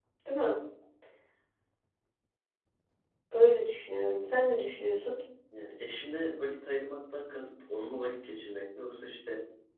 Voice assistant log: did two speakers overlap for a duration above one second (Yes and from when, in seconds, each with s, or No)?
No